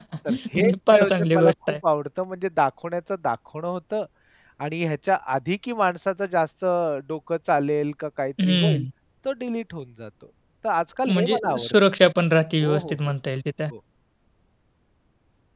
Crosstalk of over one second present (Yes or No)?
Yes